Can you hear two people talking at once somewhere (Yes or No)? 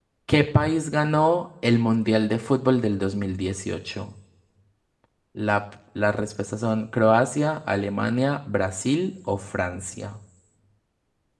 No